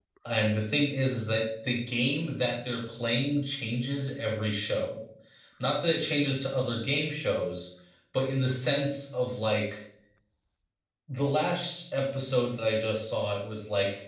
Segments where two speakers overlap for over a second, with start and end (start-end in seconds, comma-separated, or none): none